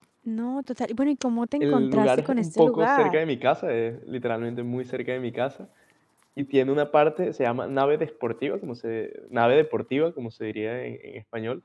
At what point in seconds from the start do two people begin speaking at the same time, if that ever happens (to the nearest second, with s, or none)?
2 s